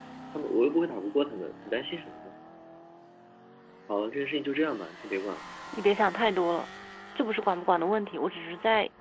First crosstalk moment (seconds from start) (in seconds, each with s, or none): none